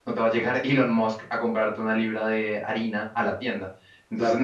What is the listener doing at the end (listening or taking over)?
listening